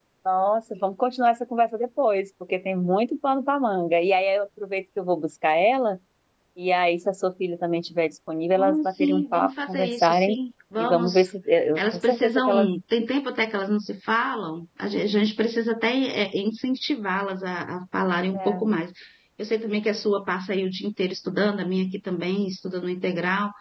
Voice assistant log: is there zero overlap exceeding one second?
No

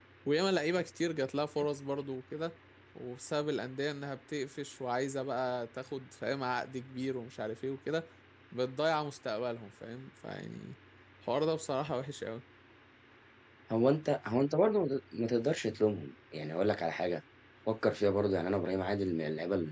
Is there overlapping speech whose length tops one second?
No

